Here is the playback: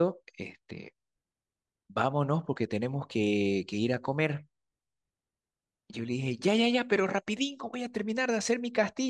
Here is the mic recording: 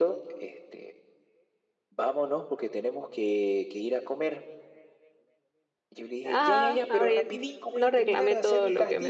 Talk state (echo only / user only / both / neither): both